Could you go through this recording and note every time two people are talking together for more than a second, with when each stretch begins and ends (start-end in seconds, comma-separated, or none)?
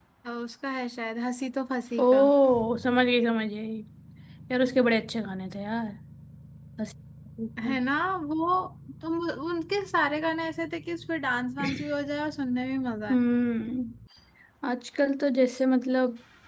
none